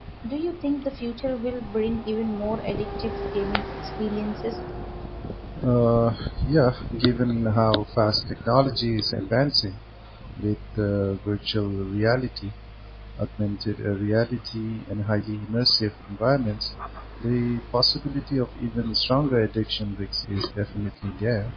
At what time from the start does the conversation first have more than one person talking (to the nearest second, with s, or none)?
none